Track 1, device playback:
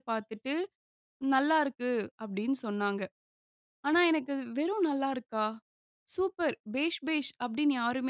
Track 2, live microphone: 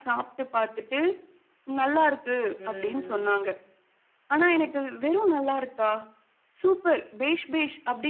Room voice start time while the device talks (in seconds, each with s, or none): 2.6 s